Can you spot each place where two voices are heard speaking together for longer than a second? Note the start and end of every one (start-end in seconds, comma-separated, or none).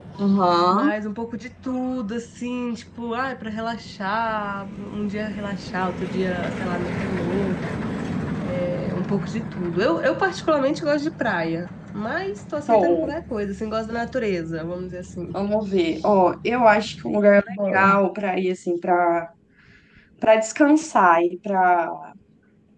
none